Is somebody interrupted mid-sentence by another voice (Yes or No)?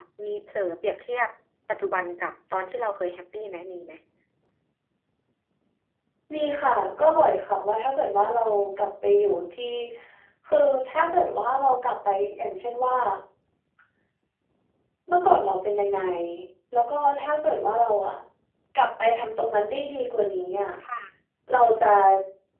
No